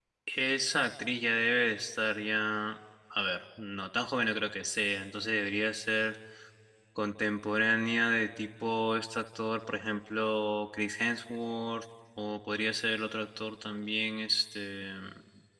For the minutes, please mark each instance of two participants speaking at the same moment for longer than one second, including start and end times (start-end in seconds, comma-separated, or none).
none